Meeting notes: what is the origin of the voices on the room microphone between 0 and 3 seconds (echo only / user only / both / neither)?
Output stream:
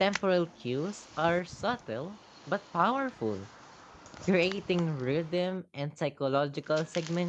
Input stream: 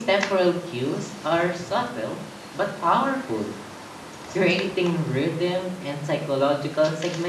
echo only